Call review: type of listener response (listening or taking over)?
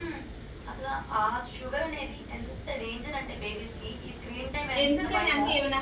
taking over